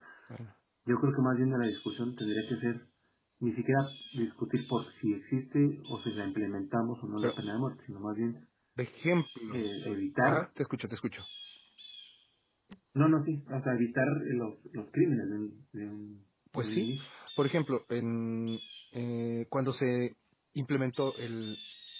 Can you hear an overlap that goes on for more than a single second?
No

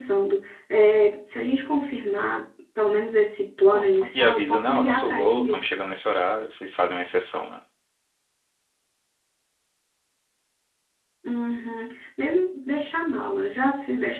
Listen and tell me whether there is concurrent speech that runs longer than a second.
Yes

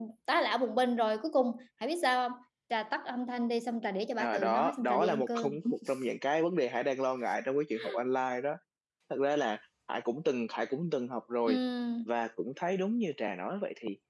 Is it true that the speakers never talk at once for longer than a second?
No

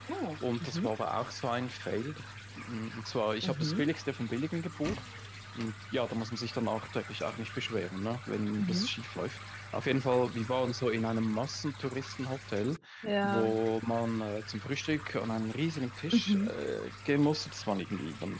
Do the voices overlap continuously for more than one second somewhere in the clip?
No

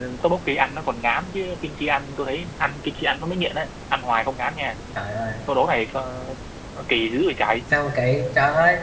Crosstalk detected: No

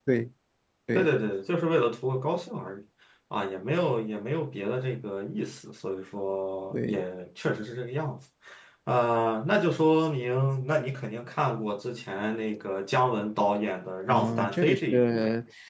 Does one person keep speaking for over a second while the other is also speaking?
Yes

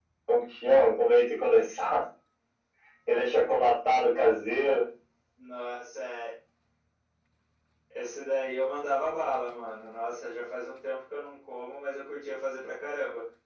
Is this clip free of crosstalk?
Yes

